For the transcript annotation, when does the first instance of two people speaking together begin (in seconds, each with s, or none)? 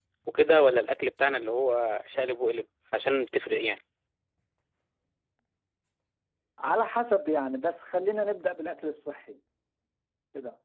none